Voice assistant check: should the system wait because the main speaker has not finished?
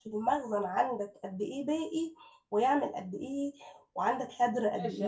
No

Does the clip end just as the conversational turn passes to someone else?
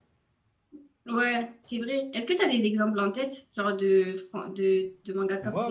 Yes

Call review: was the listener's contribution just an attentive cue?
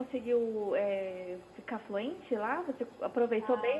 No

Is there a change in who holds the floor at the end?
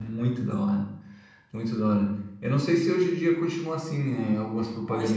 Yes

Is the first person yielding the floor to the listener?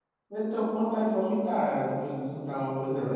Yes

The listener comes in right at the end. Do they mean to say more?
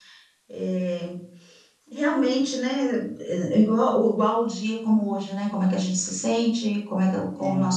No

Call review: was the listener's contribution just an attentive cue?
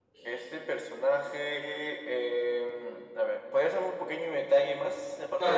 No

